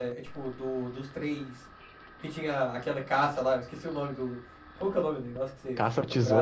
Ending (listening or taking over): taking over